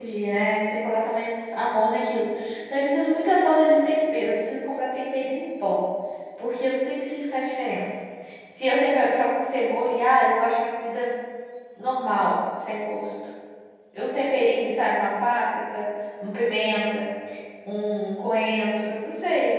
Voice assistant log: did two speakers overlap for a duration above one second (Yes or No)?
No